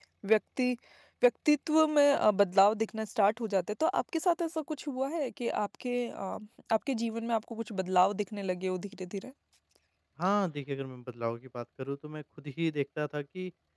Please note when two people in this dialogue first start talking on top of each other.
none

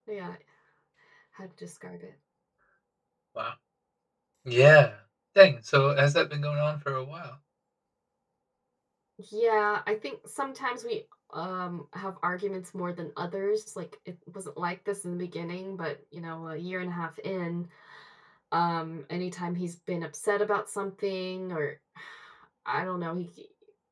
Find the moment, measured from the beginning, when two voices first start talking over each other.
none

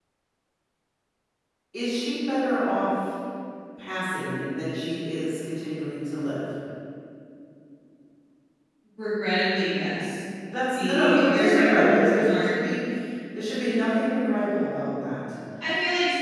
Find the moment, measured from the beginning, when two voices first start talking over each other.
10.8 s

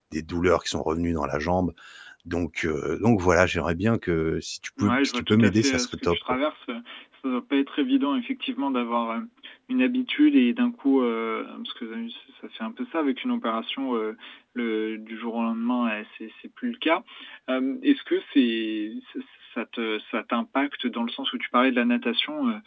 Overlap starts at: 4.8 s

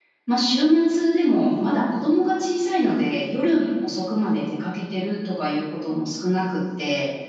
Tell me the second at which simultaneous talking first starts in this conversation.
none

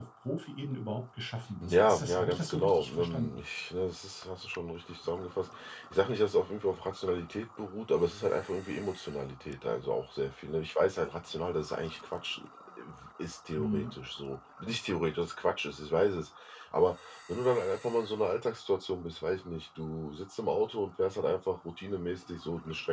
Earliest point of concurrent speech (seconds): 1.6 s

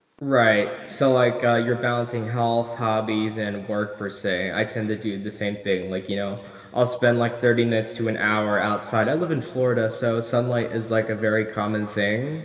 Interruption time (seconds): none

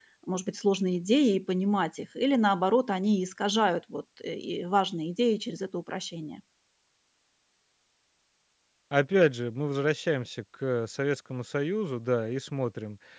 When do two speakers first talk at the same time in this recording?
none

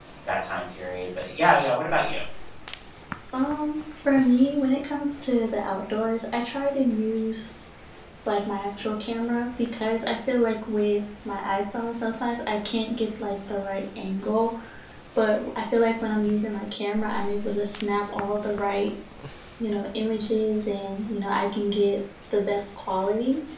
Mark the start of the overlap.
none

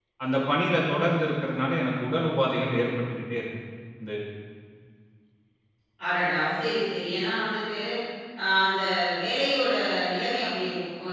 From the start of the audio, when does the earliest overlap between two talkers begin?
none

